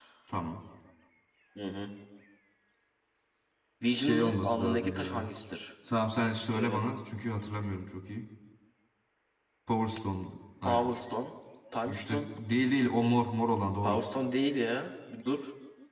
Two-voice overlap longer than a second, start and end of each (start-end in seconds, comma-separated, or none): 3.9-5.3